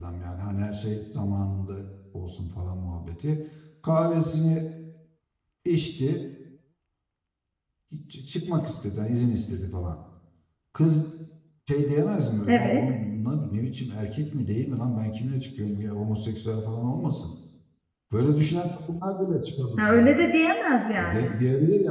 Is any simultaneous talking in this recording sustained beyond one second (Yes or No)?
No